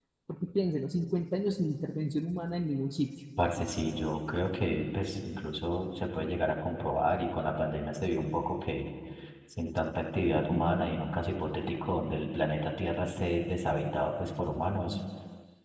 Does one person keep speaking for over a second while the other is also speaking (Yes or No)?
No